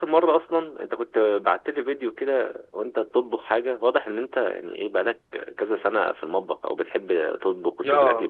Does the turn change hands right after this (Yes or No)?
Yes